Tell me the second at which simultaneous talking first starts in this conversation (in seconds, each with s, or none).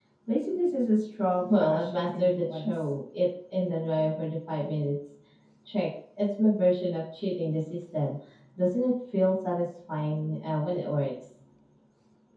1.5 s